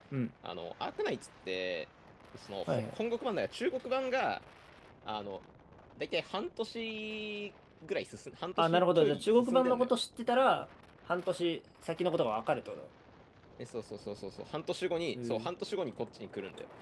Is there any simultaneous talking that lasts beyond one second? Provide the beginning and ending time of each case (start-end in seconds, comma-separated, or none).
8.6-9.9